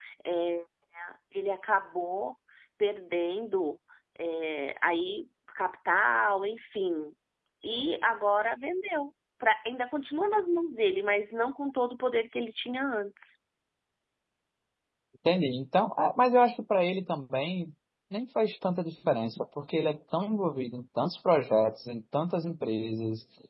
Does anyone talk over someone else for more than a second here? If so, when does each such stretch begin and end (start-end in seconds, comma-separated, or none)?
none